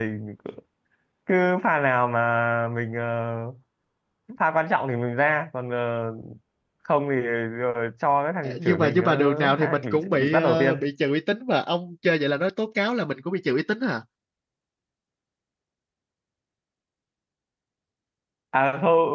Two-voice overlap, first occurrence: 8.4 s

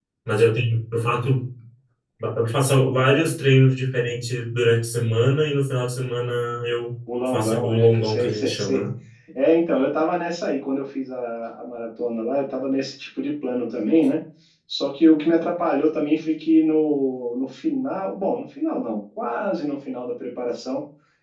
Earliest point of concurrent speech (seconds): 7.2 s

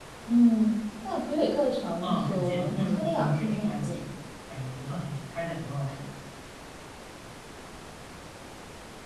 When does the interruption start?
2.0 s

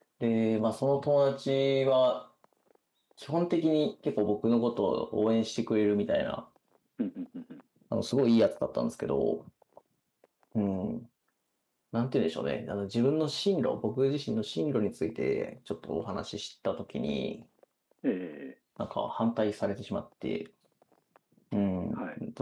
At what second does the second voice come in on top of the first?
none

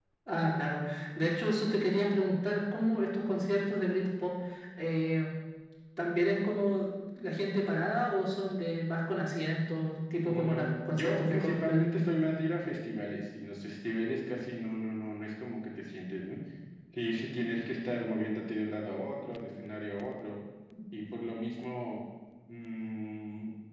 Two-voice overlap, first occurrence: 10.2 s

